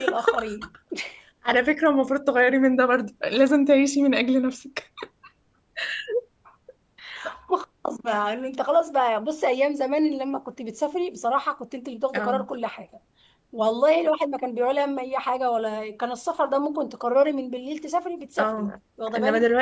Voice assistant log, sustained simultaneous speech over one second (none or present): none